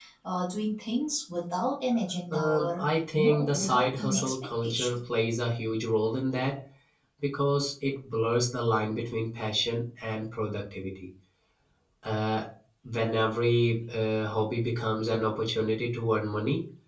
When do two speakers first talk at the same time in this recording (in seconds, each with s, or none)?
2.3 s